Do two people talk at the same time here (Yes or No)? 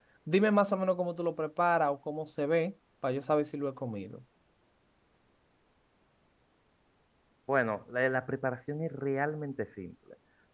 No